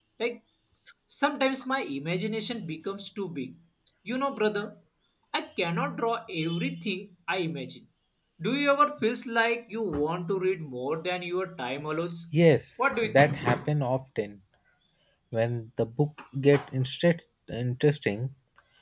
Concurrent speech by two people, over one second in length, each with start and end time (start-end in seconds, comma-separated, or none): none